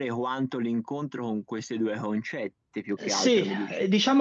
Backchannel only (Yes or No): No